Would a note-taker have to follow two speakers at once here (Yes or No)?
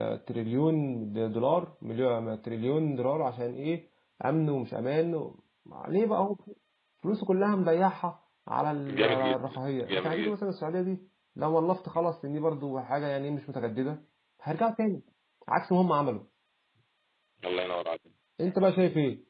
Yes